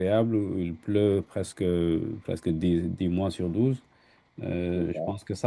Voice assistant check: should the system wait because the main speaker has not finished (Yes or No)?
Yes